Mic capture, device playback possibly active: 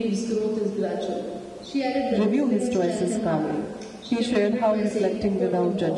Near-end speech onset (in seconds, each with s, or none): 2.1 s